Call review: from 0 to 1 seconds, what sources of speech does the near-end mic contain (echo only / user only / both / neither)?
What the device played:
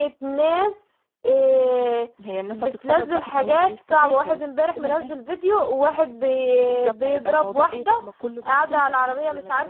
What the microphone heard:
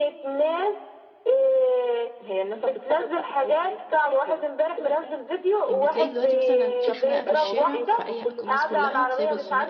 echo only